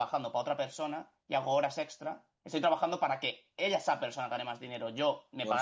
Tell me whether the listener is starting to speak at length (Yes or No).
No